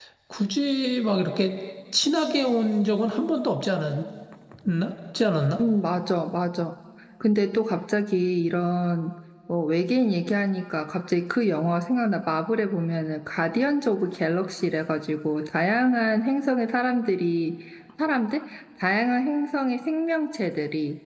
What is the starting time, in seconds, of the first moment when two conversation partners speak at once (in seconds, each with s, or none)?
none